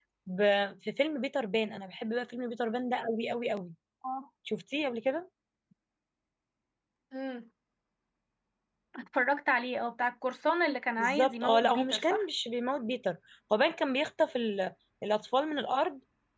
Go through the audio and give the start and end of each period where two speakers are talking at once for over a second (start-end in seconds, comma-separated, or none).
11.0-12.2